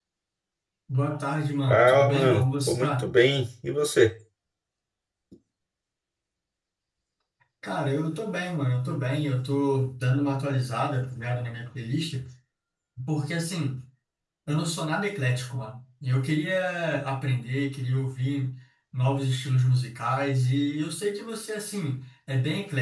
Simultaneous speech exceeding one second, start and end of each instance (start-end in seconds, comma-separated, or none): 1.7-3.1